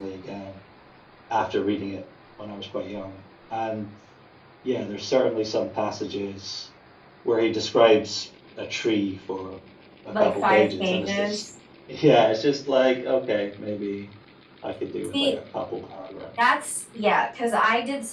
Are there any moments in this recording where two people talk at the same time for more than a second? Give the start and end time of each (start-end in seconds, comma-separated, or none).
10.2-11.4